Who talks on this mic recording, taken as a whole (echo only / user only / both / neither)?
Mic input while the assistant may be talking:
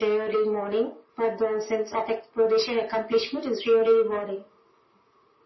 echo only